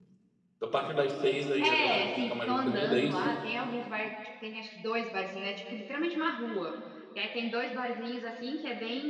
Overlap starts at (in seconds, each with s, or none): 1.6 s